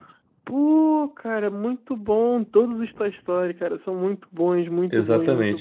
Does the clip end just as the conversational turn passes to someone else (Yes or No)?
Yes